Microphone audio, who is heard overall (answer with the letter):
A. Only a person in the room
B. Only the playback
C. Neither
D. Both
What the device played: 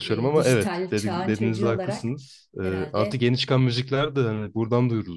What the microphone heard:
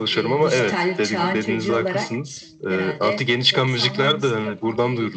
D